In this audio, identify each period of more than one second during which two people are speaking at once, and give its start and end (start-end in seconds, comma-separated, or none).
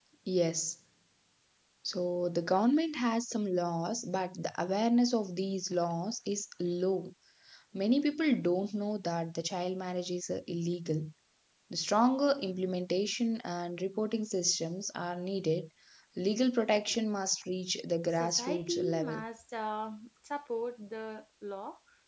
18.0-19.2